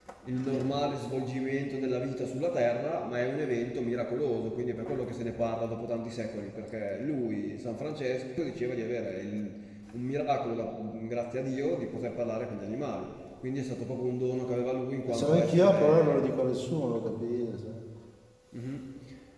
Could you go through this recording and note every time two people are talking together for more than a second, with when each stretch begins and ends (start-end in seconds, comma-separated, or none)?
15.1-16.3